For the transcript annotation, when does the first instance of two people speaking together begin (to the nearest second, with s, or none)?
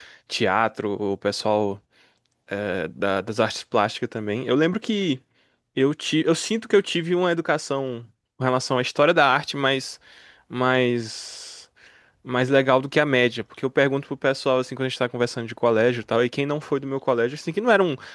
none